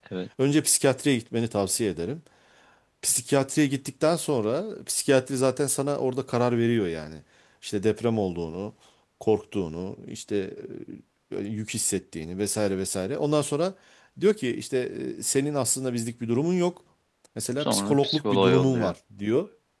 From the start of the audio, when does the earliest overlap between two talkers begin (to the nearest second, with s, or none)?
18 s